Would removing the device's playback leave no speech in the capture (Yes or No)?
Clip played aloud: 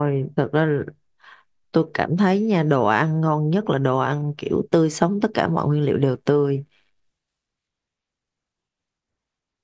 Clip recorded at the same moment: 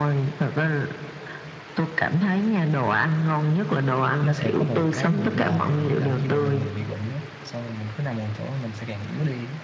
No